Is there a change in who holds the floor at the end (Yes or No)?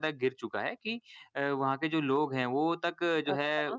No